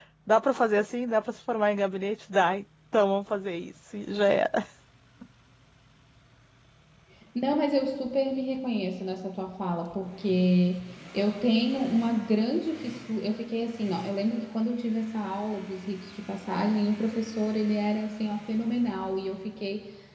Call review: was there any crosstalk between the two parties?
No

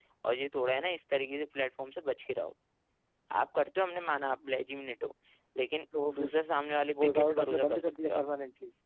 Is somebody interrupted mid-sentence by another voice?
Yes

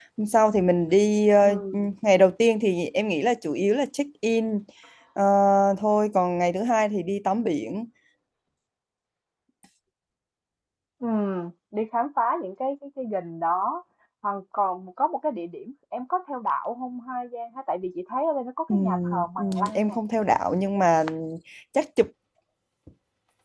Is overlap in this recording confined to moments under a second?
No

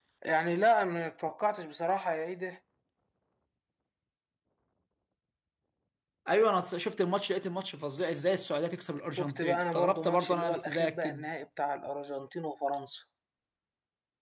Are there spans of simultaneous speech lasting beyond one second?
Yes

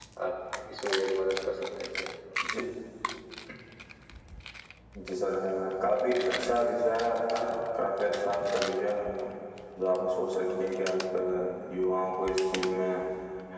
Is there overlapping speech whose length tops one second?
No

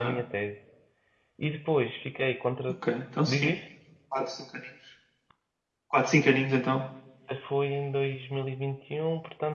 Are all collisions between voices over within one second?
Yes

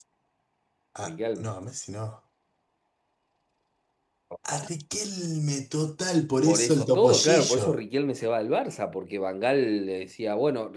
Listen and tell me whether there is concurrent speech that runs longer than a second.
Yes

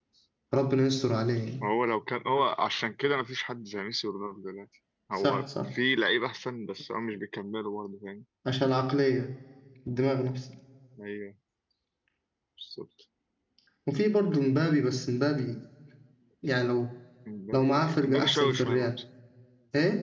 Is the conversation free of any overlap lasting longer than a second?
No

